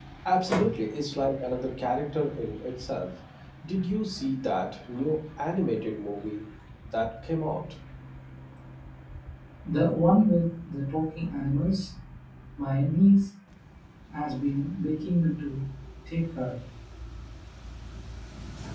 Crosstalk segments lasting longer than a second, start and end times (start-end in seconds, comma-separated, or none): none